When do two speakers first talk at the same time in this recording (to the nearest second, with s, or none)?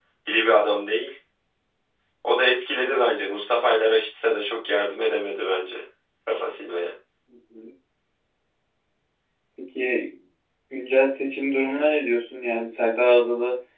none